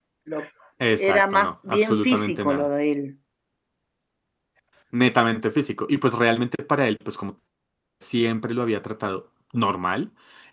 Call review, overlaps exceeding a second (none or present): present